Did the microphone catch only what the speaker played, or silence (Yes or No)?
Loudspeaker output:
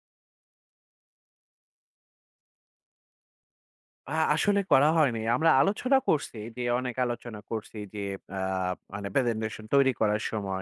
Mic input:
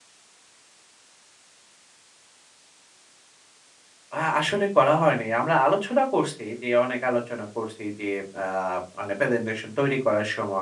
Yes